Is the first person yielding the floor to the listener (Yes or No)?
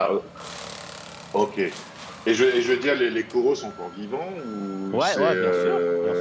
Yes